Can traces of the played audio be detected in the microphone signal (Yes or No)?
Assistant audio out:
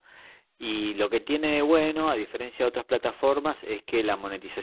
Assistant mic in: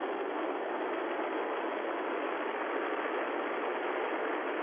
No